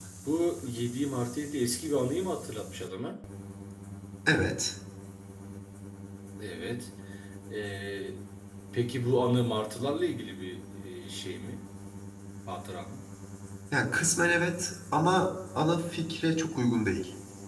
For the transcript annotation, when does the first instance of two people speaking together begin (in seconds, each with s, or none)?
none